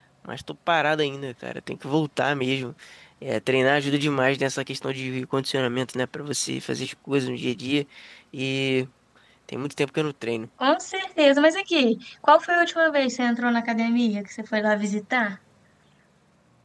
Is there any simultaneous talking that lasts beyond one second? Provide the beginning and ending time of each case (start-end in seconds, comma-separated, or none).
none